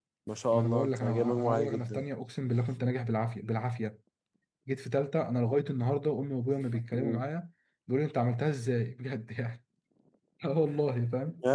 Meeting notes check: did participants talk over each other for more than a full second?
Yes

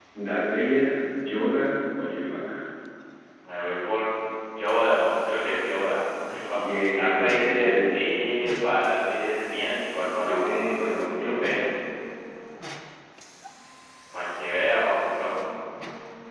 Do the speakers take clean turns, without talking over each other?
No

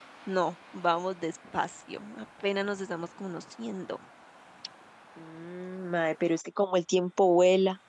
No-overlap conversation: Yes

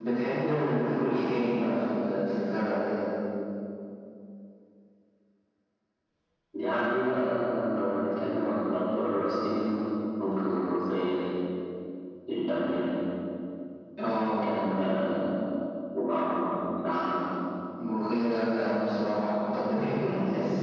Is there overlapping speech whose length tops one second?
No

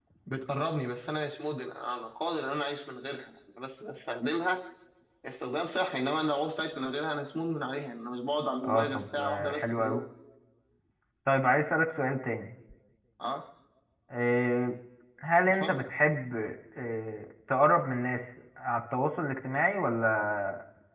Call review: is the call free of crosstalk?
No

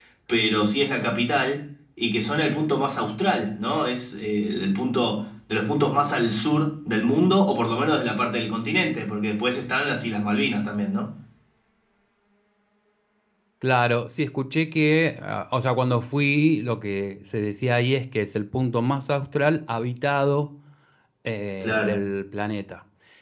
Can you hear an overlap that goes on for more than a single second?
No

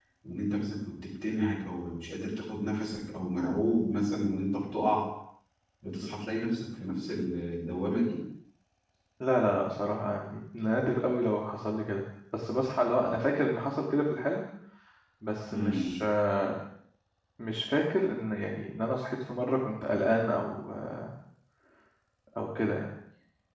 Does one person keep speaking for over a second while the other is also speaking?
No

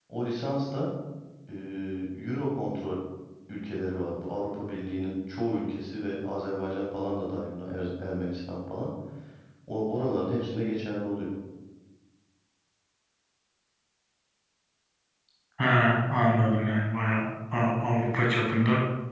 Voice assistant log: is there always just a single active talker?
Yes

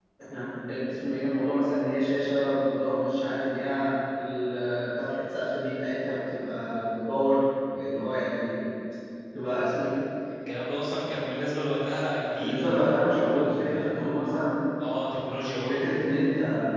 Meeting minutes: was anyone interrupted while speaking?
Yes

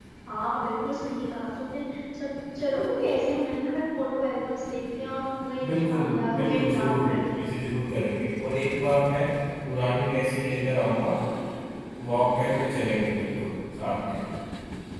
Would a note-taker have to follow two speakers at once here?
Yes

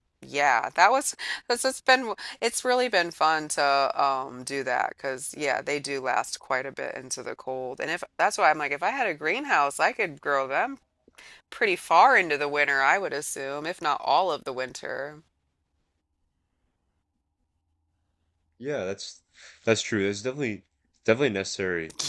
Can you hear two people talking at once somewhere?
No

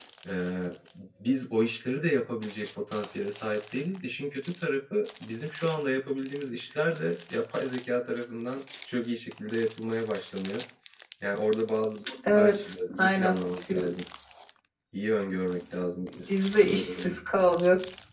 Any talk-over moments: Yes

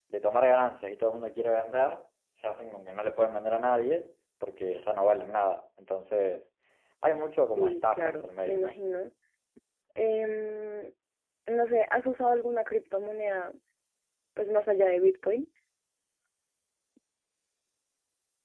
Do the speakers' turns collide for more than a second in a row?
Yes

